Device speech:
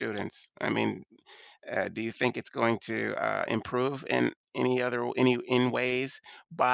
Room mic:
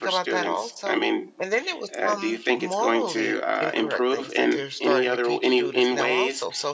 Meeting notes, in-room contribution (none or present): present